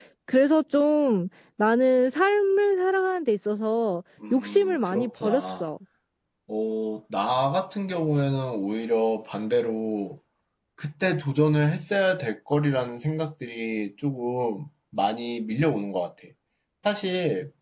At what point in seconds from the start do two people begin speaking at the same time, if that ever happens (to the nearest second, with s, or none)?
4 s